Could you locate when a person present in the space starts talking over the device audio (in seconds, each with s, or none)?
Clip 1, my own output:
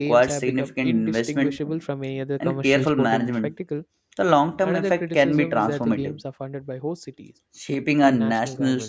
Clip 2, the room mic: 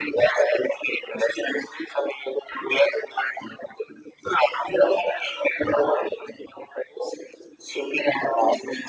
none